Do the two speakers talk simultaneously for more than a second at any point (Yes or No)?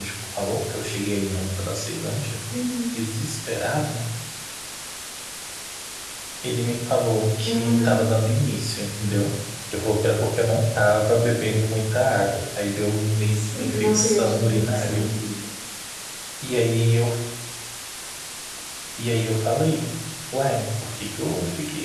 Yes